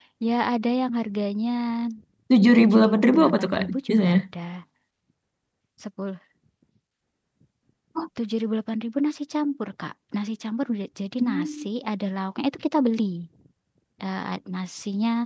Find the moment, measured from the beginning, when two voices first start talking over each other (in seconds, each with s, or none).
2.6 s